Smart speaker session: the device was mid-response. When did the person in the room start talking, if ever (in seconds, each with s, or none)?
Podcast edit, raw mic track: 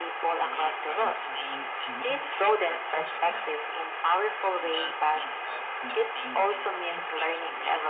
0.4 s